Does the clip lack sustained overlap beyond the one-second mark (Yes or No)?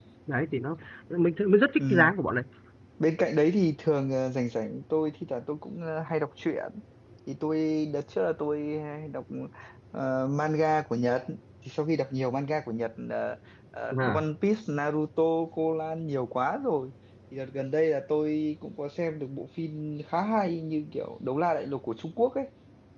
Yes